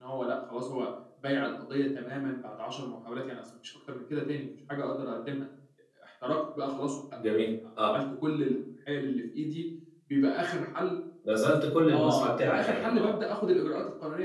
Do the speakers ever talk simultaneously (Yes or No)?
Yes